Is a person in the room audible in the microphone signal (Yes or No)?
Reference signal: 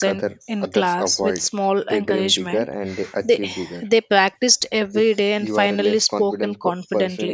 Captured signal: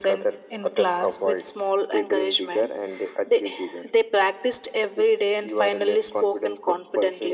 No